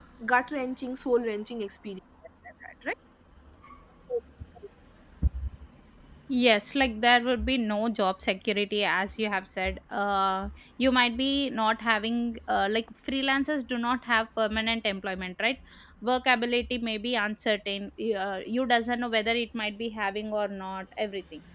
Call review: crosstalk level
none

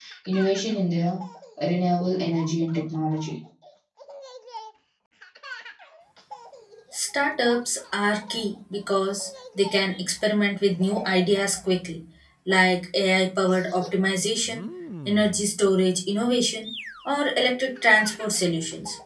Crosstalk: none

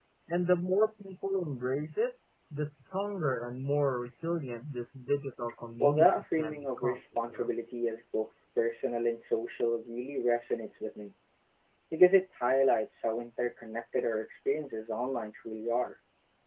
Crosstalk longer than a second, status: present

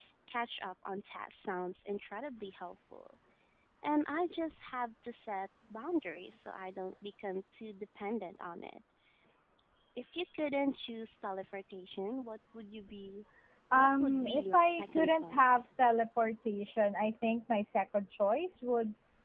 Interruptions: present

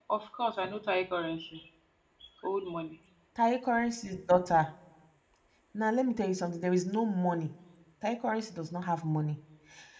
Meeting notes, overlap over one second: none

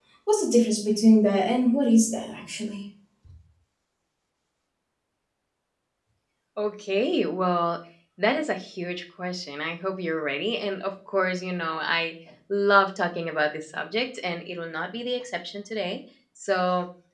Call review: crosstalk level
none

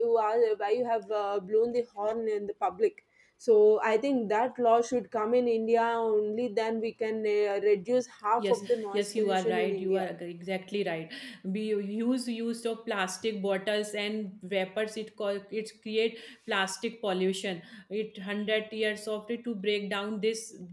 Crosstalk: present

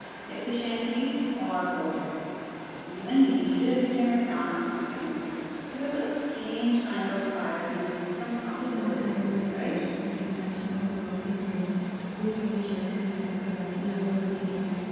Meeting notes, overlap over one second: present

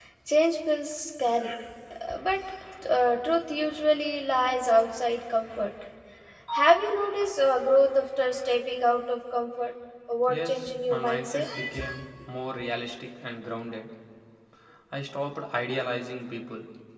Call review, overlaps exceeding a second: present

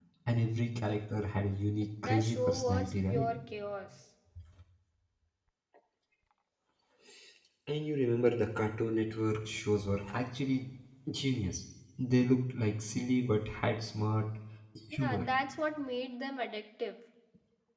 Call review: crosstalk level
present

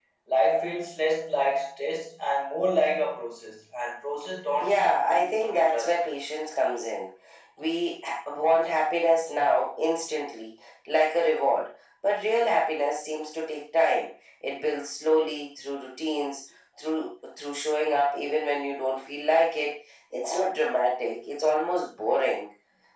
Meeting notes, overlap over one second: present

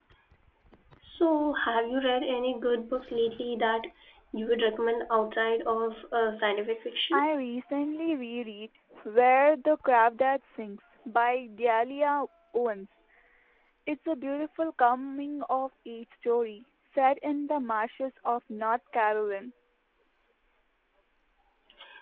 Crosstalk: none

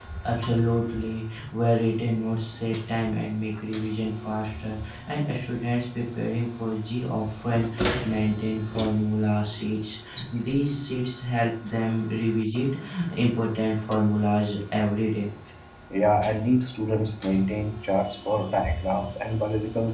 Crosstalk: none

